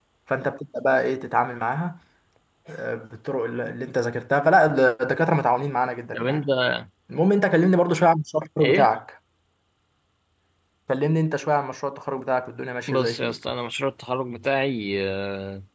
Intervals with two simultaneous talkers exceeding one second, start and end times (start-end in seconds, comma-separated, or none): none